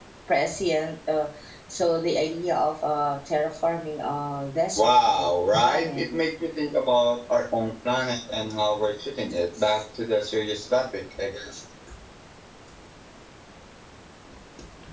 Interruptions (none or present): present